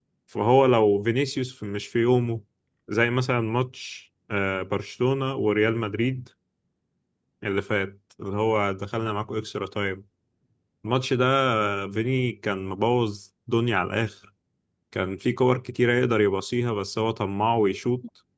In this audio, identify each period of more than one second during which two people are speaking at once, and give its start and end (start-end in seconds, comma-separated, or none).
none